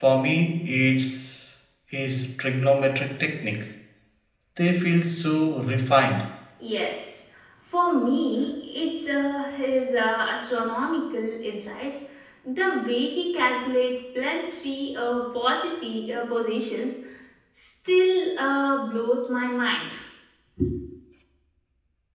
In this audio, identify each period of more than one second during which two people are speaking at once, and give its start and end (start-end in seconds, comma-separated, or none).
none